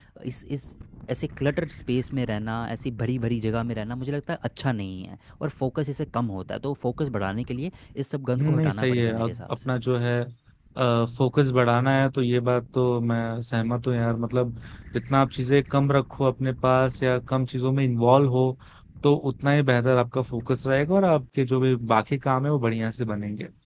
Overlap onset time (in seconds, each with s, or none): 8.4 s